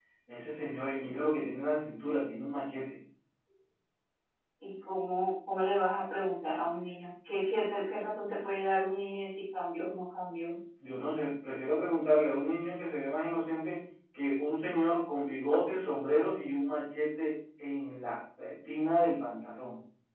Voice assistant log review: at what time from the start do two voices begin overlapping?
none

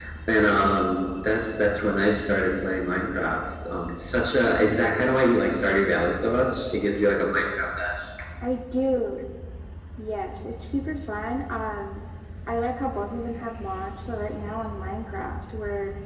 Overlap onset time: none

